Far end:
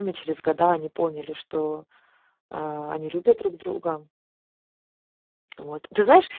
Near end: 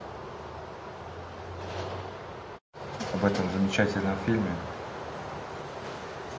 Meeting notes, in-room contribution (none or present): present